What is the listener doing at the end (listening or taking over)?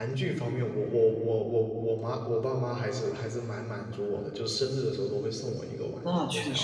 taking over